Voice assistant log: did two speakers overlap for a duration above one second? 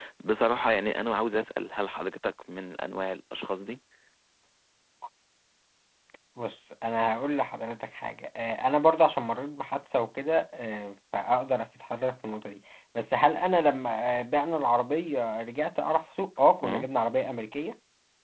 No

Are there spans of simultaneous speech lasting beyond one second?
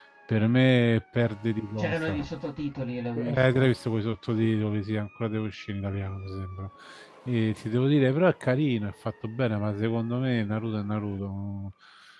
No

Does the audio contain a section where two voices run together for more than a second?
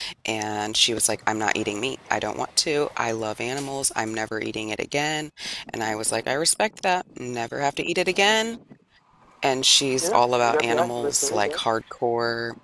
Yes, from 10.0 s

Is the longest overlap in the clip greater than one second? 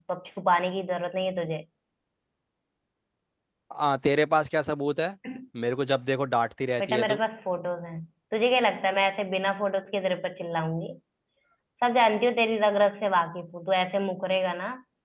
No

